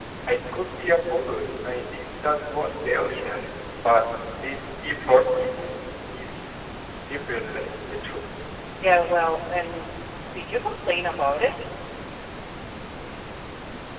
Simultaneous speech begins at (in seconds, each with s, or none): none